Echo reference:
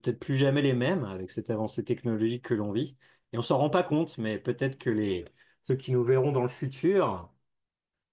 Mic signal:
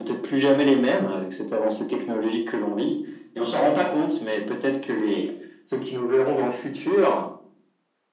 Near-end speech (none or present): none